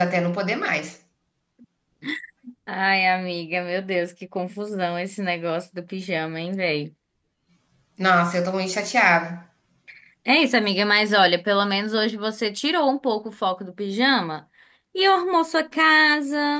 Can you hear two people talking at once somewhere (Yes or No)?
No